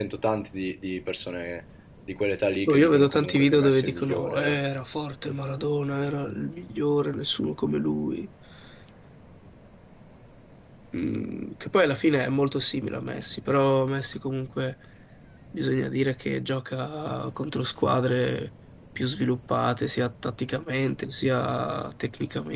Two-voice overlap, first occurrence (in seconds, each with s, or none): 2.7 s